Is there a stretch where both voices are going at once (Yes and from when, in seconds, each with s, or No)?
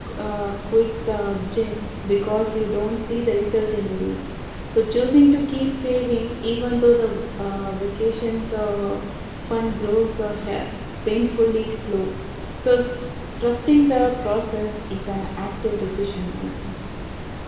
No